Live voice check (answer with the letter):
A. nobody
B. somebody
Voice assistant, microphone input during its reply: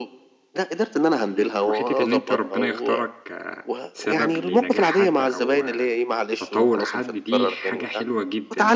B